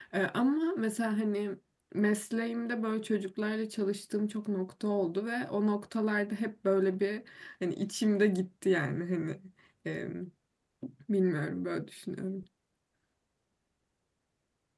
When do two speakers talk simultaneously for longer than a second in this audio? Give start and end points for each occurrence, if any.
none

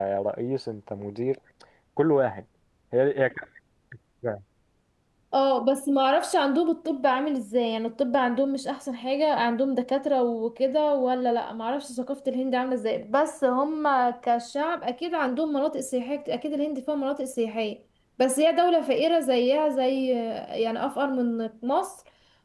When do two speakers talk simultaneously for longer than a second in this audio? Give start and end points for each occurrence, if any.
none

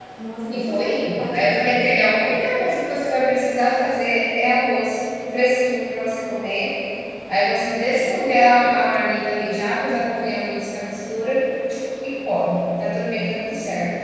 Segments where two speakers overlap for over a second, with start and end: 0.5-1.8

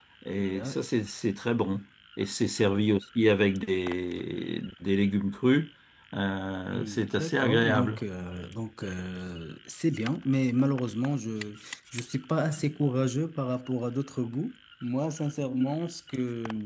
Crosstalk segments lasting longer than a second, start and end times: 6.7-8.0

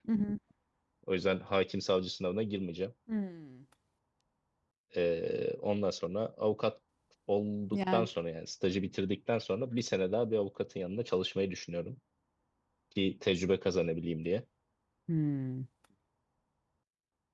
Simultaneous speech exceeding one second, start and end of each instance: none

